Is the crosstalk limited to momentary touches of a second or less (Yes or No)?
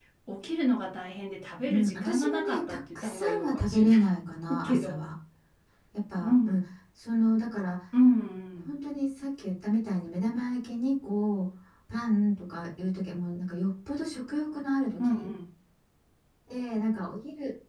No